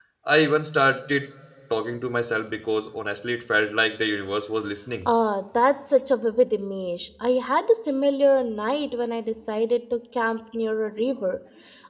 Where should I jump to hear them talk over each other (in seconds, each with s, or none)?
none